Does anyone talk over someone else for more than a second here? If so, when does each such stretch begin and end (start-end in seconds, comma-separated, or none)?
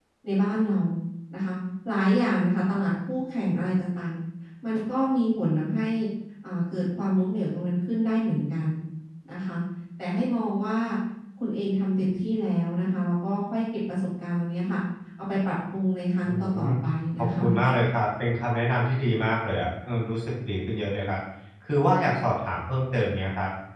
none